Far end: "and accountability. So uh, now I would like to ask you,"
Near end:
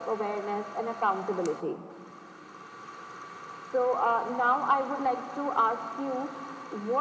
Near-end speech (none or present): none